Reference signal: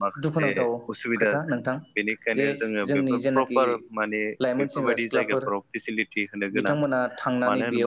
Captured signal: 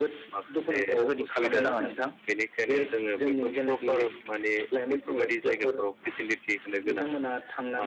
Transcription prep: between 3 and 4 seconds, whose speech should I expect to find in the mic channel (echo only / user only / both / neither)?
echo only